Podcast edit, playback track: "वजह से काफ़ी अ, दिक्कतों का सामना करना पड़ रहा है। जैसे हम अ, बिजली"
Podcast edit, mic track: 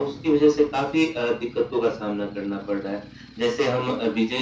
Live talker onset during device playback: none

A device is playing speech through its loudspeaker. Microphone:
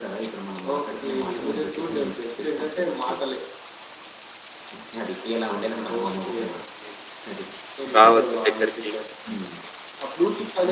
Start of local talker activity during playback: 7.9 s

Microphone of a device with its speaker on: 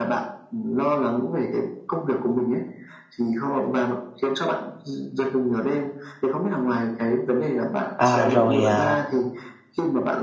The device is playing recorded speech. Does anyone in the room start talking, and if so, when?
7.9 s

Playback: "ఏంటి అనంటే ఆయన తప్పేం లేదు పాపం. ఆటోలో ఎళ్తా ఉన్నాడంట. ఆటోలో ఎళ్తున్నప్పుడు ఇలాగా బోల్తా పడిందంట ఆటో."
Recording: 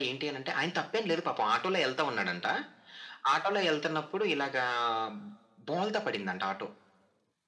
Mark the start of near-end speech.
none

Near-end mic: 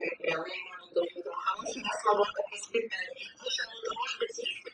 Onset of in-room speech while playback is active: none

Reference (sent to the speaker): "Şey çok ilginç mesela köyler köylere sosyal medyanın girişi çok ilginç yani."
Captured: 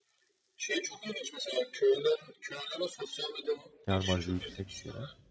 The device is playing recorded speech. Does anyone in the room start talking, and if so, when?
3.9 s

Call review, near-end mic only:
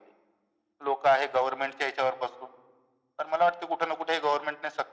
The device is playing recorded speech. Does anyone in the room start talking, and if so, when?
none

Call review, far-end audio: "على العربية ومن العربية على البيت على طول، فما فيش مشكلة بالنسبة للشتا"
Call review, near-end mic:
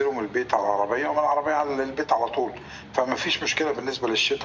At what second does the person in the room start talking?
none

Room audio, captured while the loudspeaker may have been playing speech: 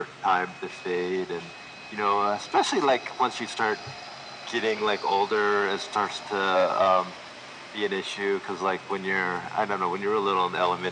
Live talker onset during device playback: none

